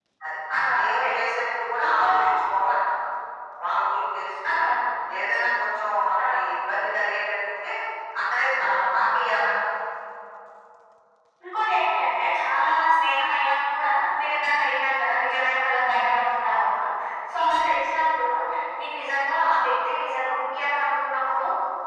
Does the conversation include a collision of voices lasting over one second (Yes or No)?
No